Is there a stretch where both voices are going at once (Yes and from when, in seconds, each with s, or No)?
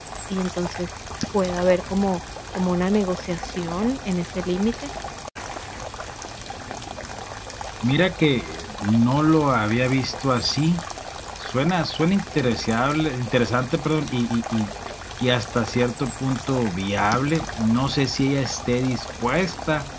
No